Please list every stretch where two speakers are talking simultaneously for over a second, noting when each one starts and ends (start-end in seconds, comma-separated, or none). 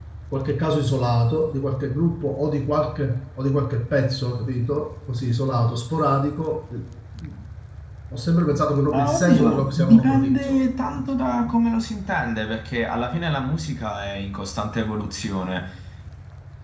8.9-10.6